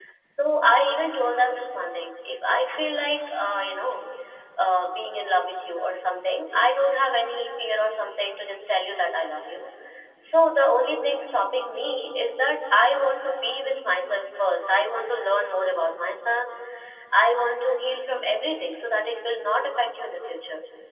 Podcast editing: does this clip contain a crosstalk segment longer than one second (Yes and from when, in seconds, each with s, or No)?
No